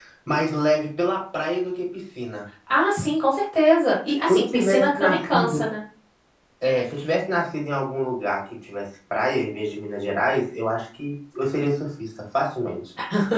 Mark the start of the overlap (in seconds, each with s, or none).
4.3 s